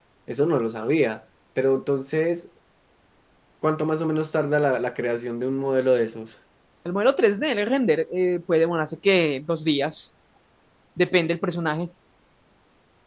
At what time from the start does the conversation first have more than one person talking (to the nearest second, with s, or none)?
none